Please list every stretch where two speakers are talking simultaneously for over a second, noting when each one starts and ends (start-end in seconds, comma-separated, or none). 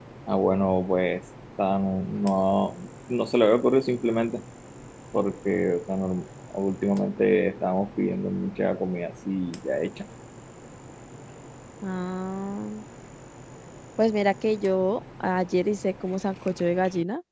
none